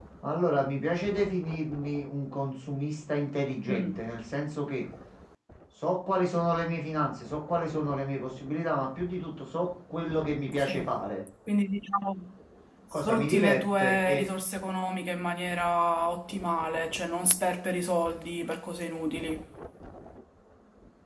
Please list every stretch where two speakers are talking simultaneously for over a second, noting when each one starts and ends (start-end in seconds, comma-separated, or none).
13.0-14.2